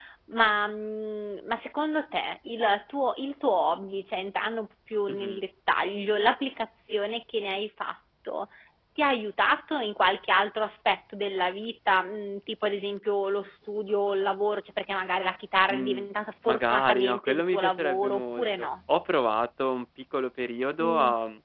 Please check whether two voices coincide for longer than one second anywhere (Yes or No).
Yes